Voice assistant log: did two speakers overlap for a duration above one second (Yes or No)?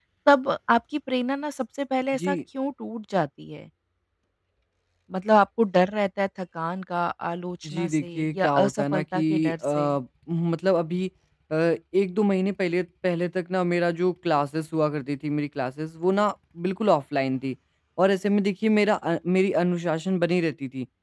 Yes